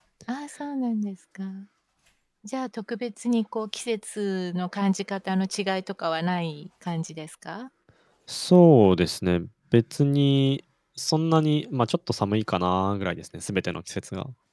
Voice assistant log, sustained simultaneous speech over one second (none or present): none